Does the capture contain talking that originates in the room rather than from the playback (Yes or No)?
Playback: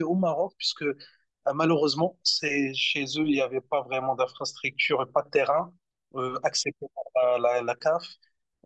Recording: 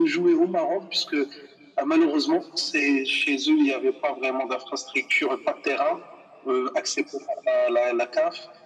No